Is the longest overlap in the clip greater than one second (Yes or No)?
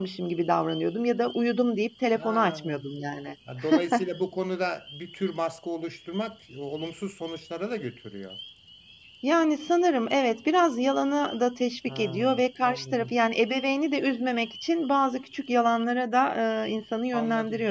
Yes